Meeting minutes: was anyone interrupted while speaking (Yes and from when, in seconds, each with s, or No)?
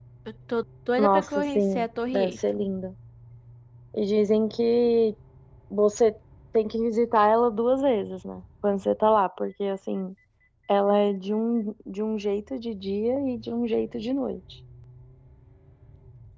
Yes, from 1.0 s